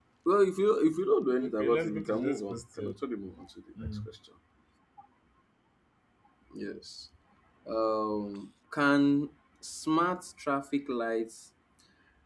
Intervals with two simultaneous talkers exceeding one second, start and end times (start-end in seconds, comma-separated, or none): 1.4-2.9